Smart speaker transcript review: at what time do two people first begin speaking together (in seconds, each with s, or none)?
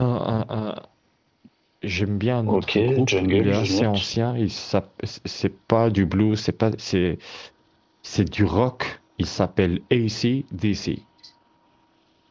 2.5 s